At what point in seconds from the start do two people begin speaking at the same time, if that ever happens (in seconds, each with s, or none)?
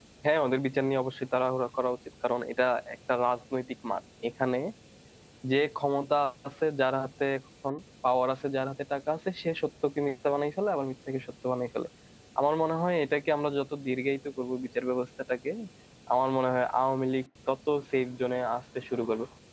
none